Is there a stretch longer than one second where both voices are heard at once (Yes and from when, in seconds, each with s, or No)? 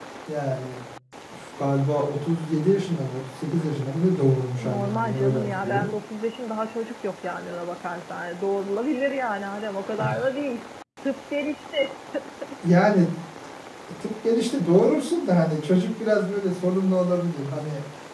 Yes, from 4.5 s